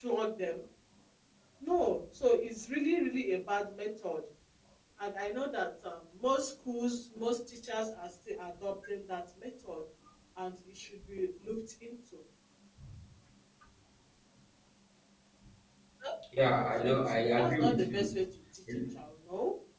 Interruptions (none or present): present